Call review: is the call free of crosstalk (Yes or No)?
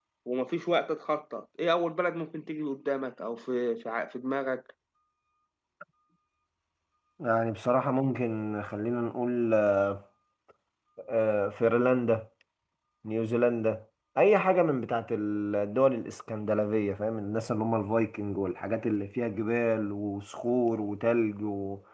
Yes